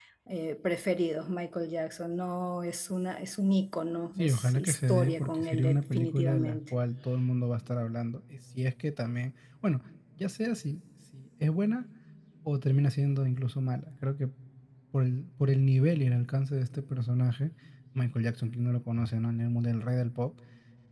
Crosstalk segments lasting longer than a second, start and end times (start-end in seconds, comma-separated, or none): 4.2-6.6